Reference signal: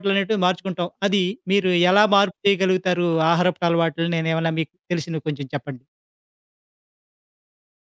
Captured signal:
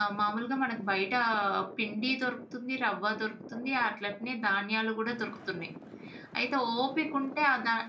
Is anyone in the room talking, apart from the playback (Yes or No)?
Yes